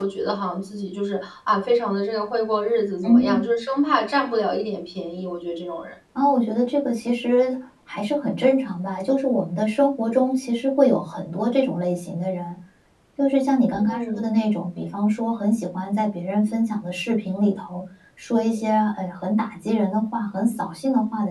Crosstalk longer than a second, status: none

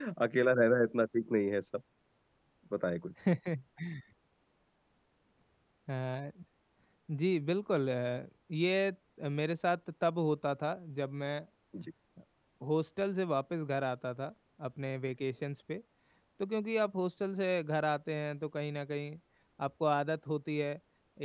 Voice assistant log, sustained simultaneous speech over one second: none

